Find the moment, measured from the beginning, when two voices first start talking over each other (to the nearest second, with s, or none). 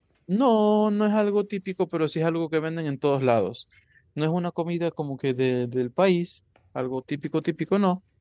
none